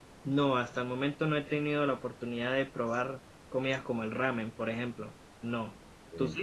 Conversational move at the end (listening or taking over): taking over